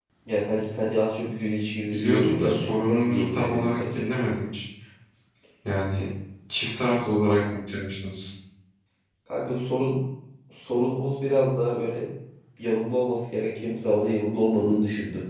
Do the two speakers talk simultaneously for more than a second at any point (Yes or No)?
Yes